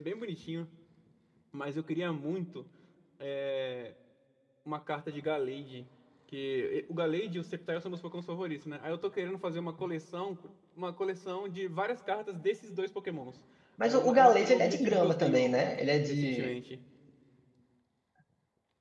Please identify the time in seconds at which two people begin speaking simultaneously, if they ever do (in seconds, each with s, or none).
13.8 s